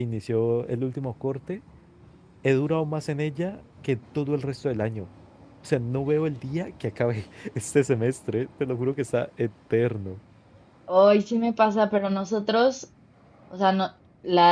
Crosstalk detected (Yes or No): No